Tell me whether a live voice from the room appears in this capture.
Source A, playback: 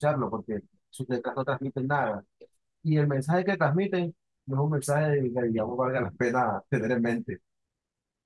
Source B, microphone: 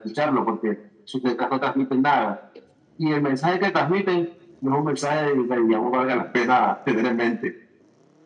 No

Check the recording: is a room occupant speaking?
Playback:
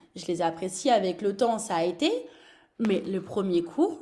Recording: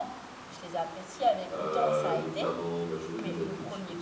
Yes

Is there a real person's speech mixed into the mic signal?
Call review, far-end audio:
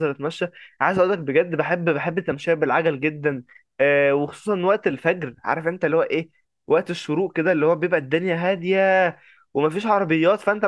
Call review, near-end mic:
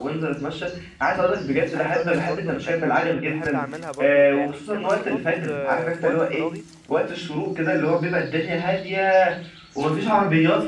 Yes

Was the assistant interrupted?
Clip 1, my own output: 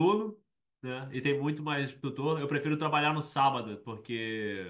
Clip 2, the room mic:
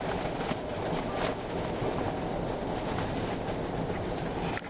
No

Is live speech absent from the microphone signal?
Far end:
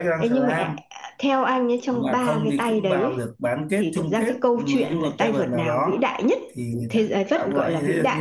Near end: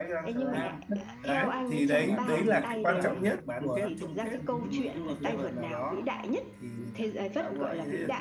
No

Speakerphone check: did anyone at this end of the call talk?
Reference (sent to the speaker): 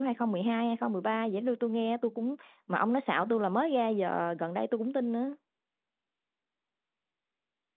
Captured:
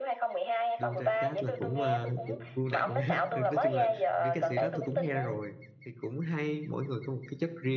Yes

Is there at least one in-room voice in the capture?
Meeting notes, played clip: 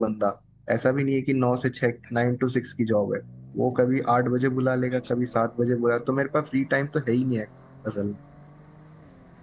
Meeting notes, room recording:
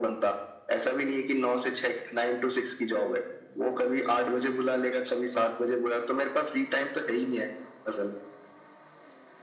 No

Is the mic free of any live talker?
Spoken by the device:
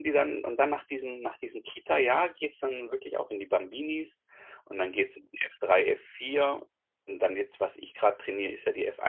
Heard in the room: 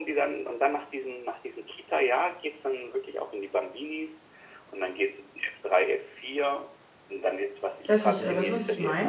No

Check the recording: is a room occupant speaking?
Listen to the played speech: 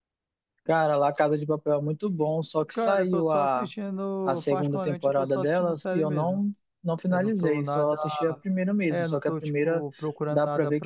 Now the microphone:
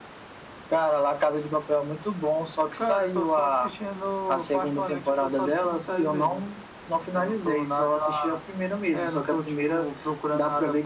No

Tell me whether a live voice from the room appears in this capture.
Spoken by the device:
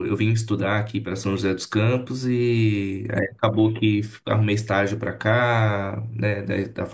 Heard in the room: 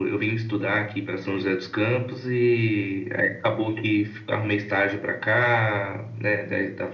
No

